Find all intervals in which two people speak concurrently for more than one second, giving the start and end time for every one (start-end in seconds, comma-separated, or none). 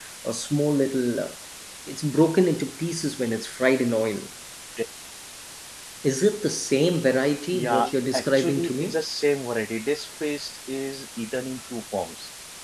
7.5-9.0